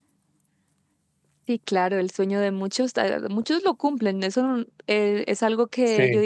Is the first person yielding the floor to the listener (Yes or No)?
No